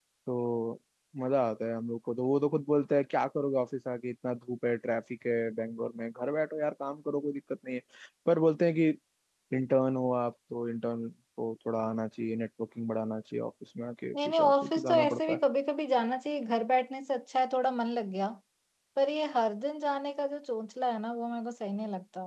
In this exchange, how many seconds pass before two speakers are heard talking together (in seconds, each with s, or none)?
14.1 s